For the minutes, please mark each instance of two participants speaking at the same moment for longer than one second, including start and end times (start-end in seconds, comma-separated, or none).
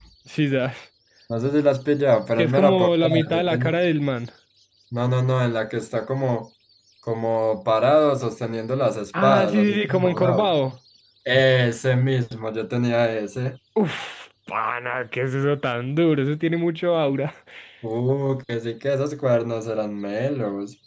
2.4-3.7, 9.2-10.5